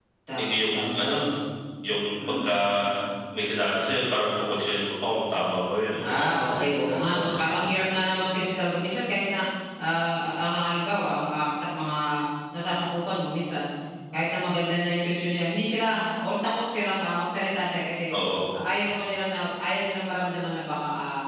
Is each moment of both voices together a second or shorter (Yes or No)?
No